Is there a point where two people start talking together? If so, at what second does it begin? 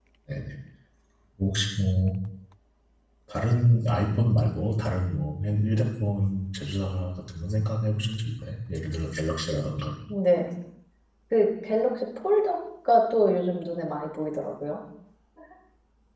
none

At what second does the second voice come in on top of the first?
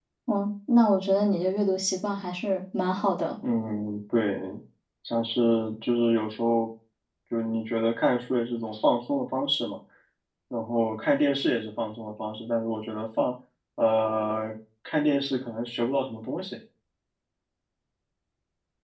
none

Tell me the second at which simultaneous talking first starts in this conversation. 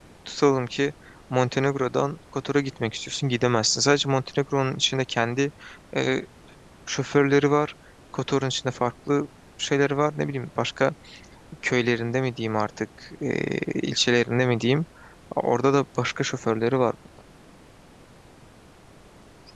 none

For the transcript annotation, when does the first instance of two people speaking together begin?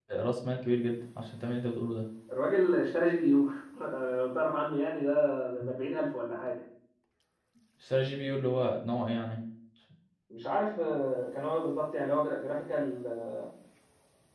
none

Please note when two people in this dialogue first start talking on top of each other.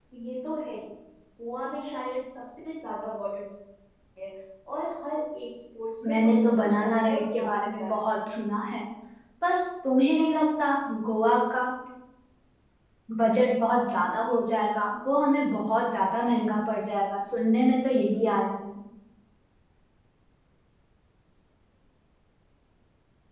6 s

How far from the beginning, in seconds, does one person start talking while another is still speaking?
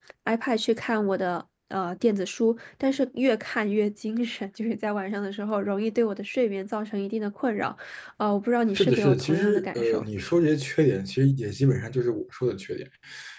9 s

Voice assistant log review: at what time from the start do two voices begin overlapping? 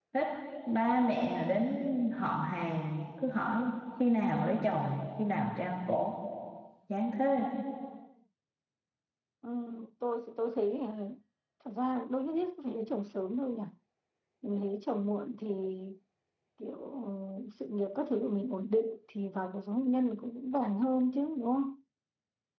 none

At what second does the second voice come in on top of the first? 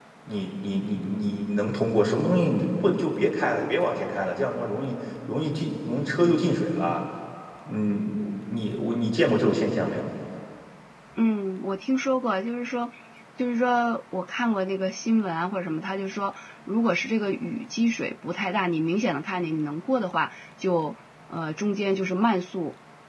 none

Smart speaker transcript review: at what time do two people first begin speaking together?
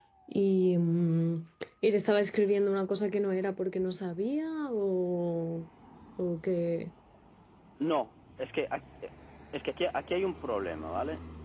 none

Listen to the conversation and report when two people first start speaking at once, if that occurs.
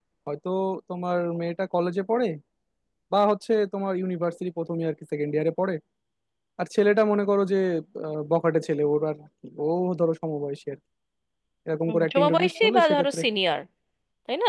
12 s

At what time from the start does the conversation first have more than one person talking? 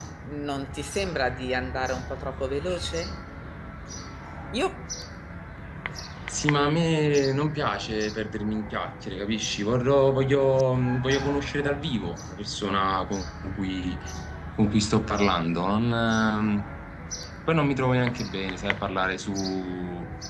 none

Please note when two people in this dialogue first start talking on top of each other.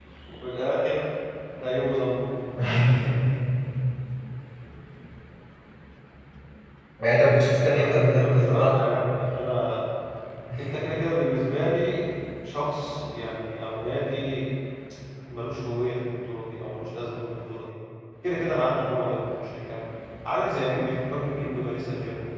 8 s

